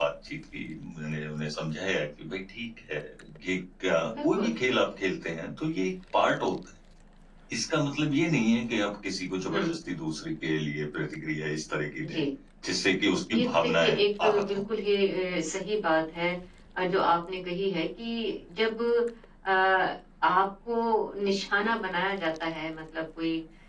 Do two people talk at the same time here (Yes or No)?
Yes